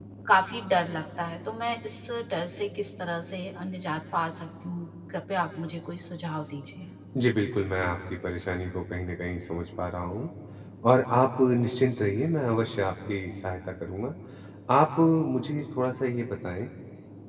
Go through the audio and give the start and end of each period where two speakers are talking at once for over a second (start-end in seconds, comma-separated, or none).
none